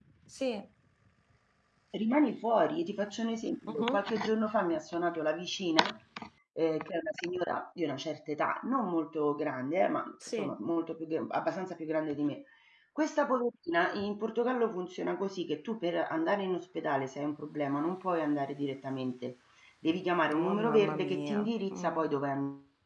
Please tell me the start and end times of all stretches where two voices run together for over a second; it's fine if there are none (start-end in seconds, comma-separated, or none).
20.3-22.0